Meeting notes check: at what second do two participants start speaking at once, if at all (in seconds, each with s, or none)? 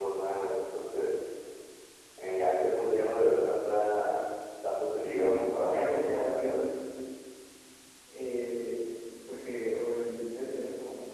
5.0 s